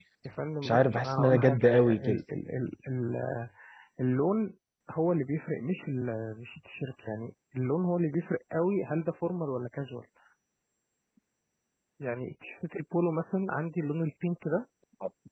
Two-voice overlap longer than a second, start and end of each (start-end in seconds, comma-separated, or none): 0.6-2.2